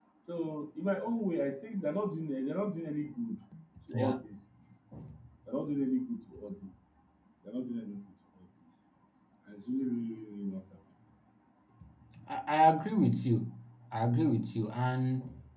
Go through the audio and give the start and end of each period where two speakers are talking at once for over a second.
none

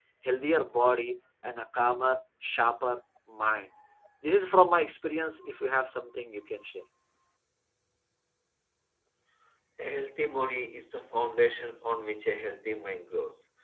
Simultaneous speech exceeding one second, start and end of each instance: none

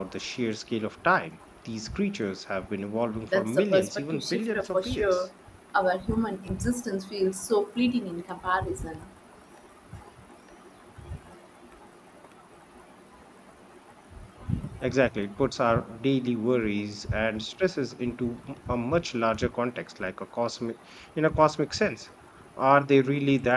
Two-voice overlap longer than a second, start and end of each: 3.3-5.2

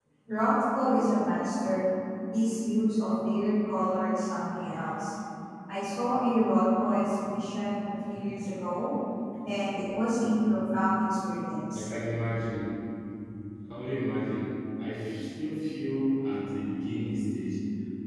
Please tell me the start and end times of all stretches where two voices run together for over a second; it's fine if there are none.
none

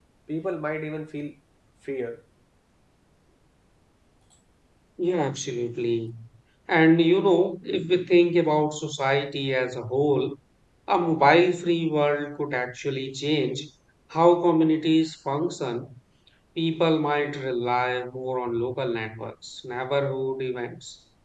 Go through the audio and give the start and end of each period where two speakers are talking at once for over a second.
none

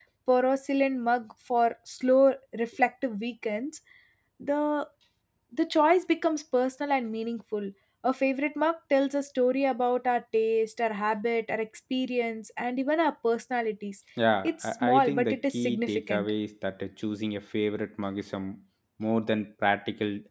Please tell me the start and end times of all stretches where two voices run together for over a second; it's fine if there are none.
14.4-16.3

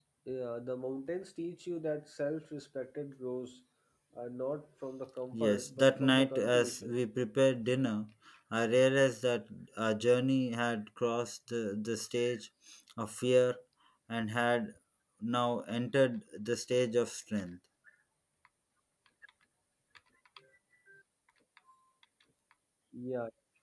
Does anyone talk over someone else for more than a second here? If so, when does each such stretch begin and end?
5.3-6.9

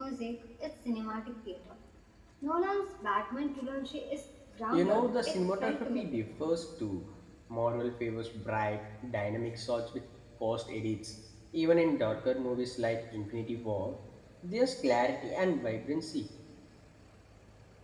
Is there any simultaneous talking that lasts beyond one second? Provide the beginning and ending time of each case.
4.7-6.2

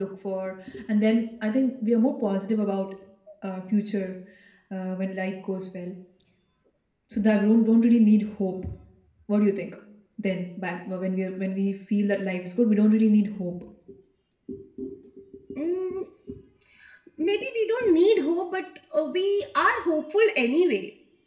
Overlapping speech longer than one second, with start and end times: none

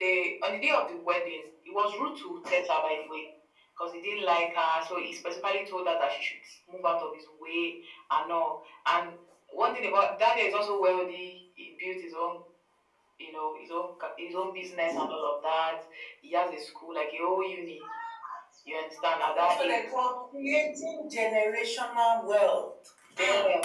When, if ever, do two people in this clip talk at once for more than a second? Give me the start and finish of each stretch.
none

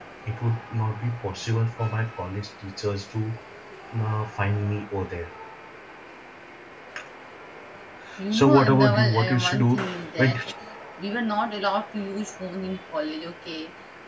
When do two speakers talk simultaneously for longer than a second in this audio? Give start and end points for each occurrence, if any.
8.3-9.7

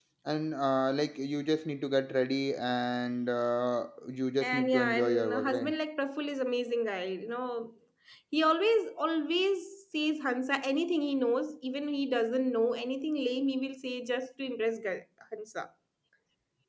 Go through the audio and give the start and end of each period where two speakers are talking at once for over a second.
4.4-5.7

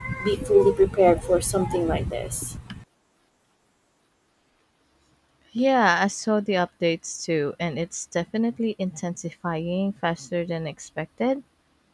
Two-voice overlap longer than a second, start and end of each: none

